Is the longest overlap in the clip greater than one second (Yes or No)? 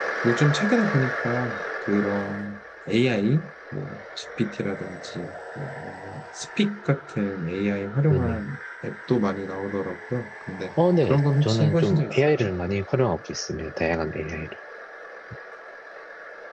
Yes